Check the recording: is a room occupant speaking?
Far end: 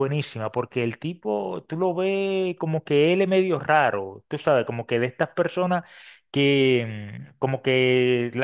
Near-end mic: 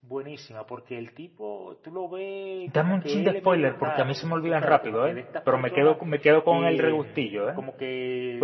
Yes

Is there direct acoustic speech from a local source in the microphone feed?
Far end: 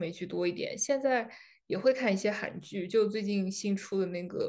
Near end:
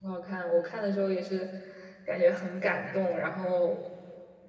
Yes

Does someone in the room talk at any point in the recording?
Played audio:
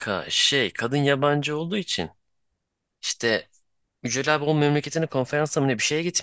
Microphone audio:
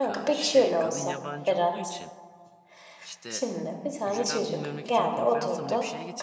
Yes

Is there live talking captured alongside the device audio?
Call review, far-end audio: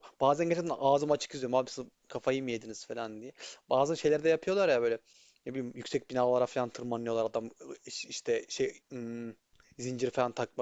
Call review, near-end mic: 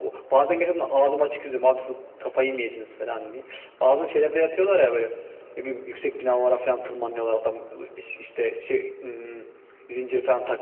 No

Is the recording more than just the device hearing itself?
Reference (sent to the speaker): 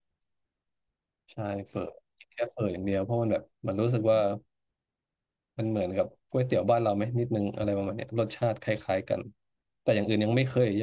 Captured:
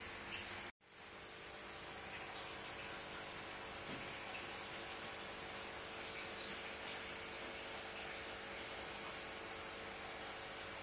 No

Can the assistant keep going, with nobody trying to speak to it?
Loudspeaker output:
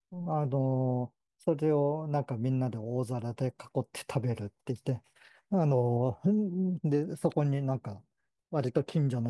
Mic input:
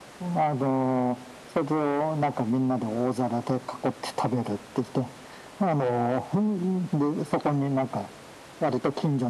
Yes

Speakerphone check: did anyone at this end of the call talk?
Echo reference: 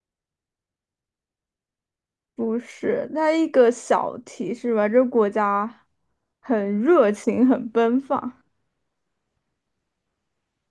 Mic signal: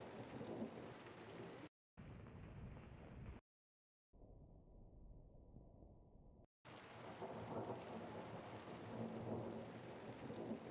No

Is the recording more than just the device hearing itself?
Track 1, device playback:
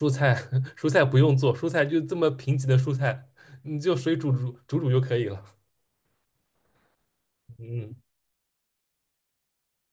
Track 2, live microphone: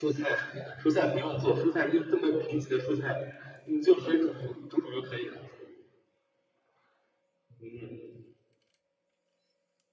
No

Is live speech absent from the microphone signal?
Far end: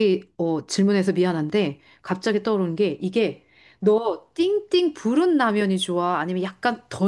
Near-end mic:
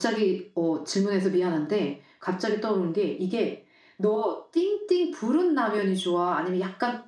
Yes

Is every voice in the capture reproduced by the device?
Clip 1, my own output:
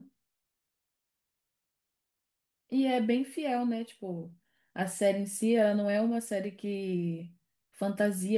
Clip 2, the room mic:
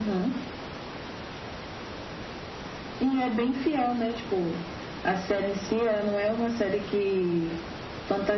Yes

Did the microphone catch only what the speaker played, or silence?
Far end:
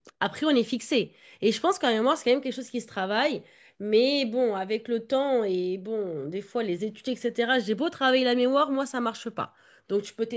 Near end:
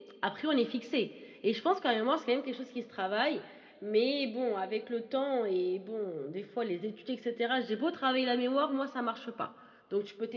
Yes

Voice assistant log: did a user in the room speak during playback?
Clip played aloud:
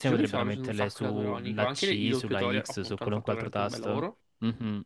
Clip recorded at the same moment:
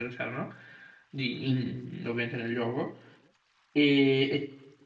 Yes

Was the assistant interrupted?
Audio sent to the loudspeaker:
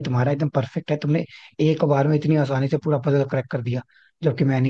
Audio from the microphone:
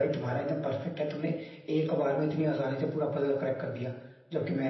No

